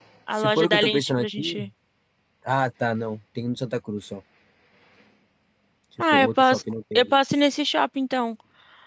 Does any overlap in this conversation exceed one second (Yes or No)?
Yes